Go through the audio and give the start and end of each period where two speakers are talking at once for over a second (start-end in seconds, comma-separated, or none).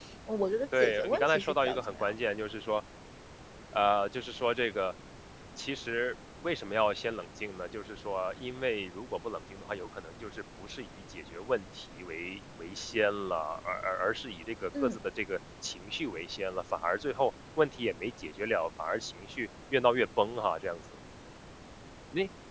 0.8-2.1